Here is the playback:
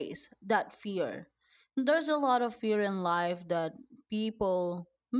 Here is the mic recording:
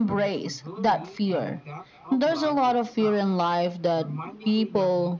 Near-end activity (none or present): present